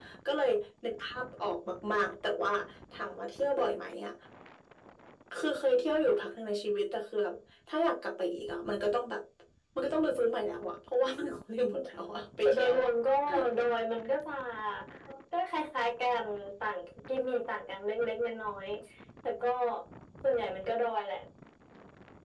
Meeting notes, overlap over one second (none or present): none